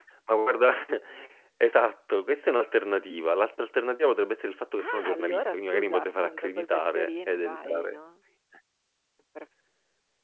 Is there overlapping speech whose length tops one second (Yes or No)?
Yes